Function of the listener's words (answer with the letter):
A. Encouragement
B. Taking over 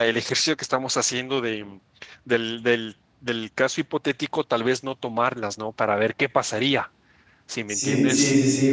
B